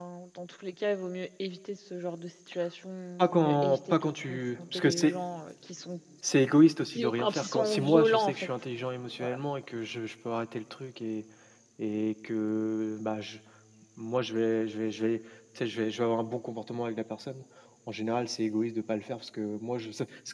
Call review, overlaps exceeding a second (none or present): present